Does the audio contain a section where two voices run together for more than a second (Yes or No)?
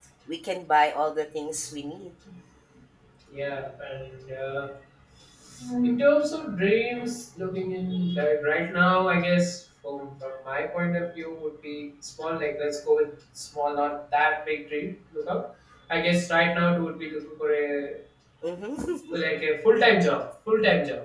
No